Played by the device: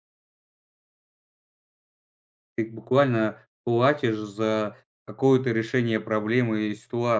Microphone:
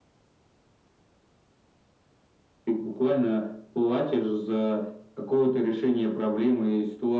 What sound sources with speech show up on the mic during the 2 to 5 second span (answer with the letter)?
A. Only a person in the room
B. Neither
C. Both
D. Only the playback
D